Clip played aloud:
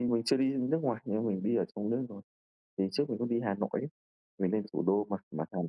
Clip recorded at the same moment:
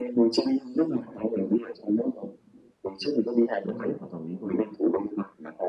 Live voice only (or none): Đúng rồi, hoàn toàn đồng ý luôn.